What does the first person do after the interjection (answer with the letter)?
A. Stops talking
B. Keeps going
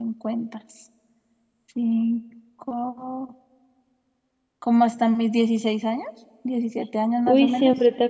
A